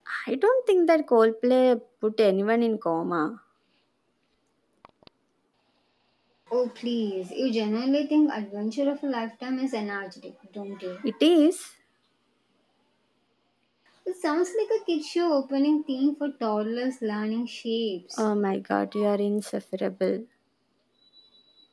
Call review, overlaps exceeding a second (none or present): none